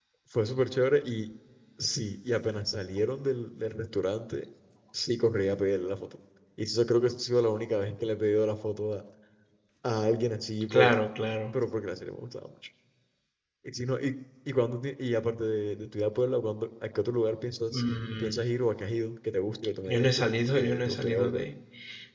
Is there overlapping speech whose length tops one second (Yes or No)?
Yes